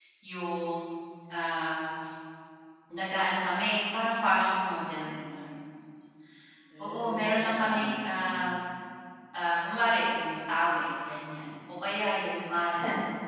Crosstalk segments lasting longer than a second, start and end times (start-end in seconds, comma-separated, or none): 6.8-8.5